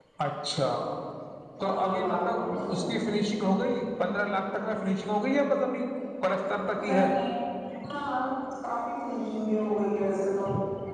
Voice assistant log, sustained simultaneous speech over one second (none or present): present